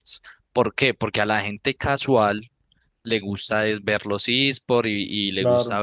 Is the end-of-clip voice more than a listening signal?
No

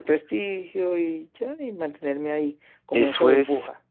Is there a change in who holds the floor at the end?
Yes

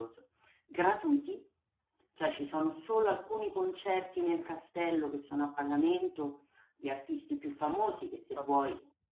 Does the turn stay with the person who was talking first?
Yes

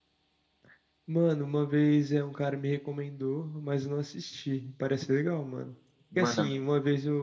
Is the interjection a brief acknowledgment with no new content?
Yes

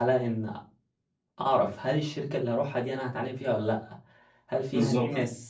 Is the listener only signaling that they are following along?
Yes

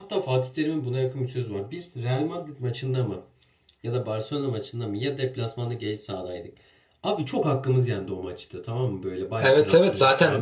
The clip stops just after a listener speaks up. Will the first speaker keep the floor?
No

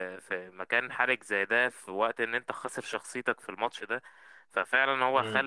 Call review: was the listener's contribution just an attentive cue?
Yes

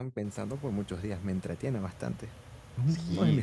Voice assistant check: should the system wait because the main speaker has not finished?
No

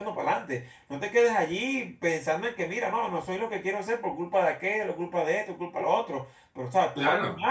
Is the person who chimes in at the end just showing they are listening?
No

